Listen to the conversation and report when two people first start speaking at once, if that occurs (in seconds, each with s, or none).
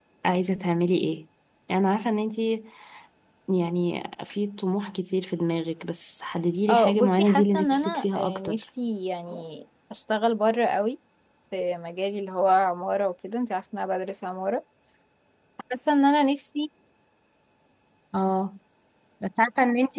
6.7 s